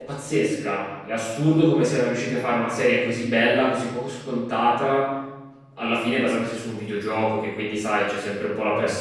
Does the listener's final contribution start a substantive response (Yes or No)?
No